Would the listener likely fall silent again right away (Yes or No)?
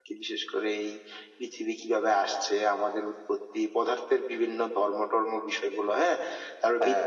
Yes